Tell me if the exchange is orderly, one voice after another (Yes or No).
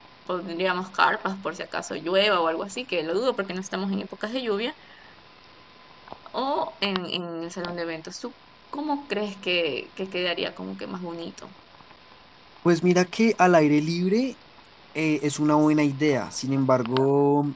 Yes